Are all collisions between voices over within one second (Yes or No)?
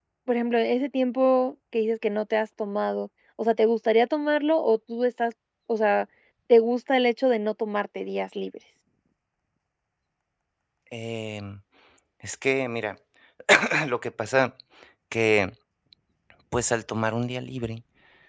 Yes